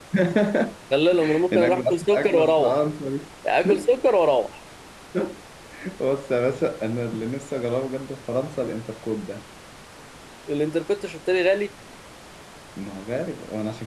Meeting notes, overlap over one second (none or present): present